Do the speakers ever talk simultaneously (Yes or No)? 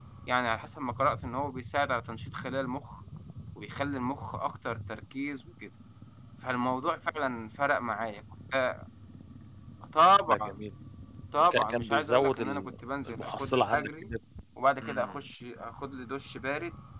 Yes